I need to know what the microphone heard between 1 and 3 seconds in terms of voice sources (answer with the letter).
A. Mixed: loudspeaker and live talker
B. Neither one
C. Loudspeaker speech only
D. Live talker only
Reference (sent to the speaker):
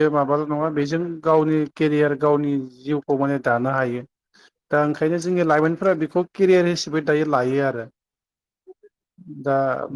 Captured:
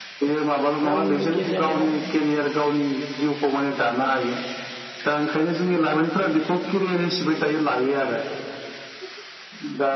A